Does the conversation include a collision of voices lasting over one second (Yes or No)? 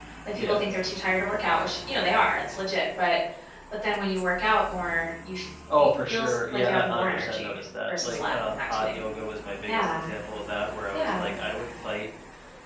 Yes